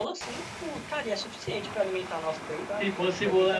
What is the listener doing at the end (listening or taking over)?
taking over